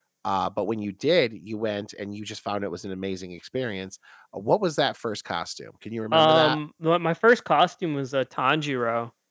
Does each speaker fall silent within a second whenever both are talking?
Yes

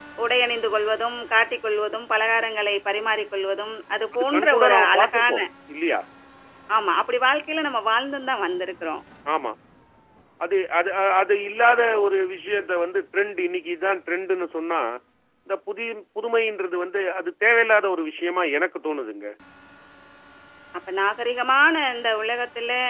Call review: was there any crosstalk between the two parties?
Yes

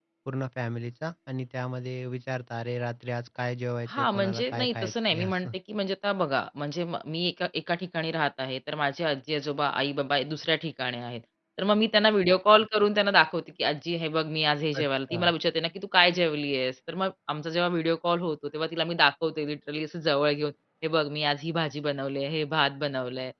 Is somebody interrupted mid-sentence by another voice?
Yes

